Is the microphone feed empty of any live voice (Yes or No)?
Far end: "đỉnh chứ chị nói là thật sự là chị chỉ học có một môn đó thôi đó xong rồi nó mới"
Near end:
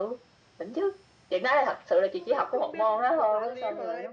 No